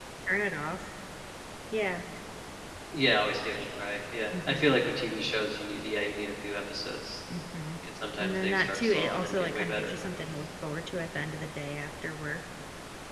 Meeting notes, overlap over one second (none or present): present